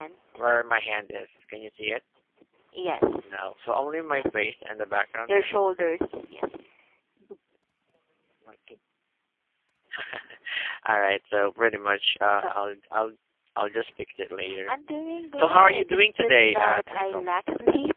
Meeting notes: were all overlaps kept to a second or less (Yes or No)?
No